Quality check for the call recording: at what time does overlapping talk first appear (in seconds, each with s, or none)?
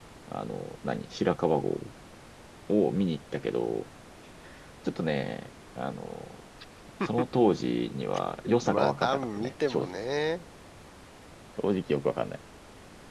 8.4 s